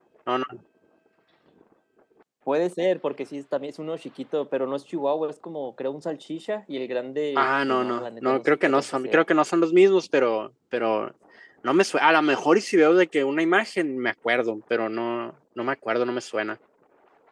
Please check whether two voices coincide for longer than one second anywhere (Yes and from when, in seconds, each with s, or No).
Yes, from 7.3 s